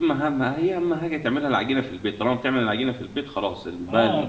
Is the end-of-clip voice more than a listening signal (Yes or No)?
Yes